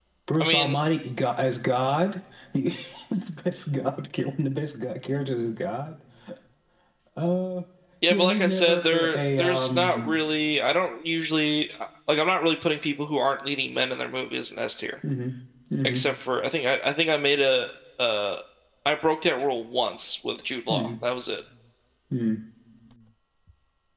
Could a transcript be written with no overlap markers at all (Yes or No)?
No